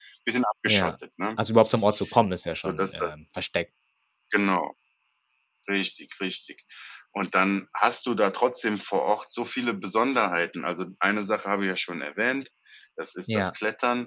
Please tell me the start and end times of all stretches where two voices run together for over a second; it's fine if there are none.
none

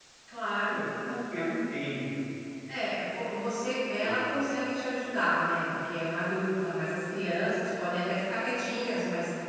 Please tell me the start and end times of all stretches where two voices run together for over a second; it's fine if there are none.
none

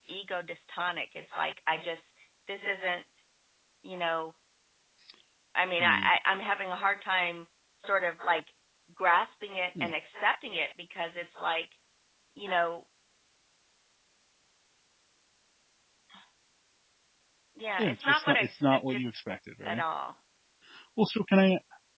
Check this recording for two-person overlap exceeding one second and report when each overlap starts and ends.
17.8-19.0

